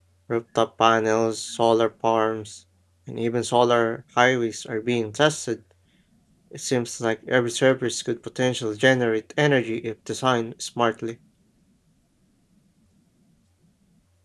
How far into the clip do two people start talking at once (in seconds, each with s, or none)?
none